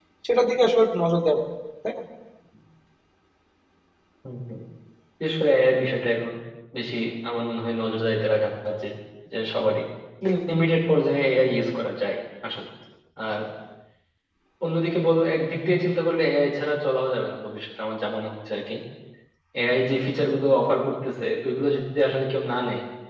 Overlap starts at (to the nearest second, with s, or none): none